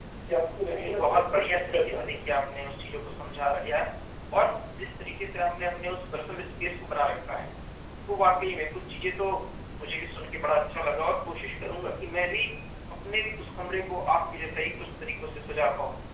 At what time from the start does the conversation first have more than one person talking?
0.6 s

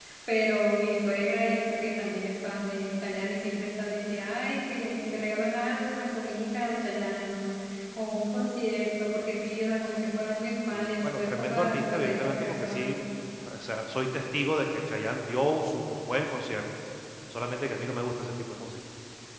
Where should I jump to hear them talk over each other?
10.7 s

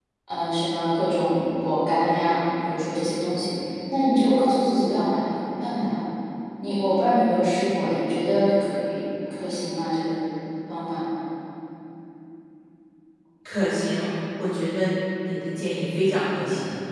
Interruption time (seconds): none

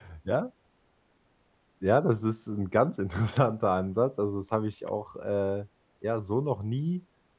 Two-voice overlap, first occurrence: none

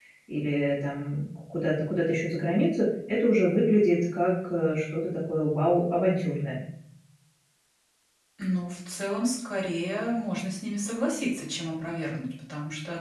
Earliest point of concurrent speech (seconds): none

